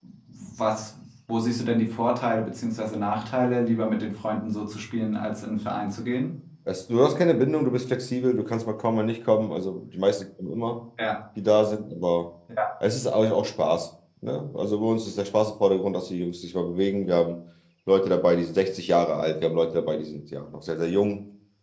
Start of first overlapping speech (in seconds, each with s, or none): none